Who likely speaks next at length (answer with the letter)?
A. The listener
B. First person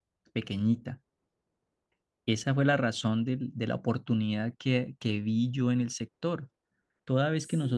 B